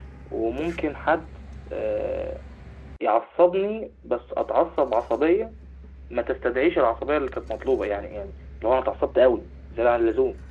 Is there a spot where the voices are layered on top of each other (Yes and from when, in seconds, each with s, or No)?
No